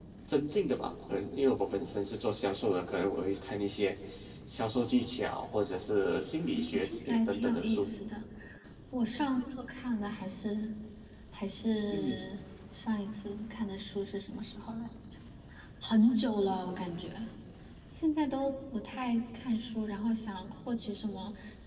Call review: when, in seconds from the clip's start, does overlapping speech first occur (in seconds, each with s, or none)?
6.5 s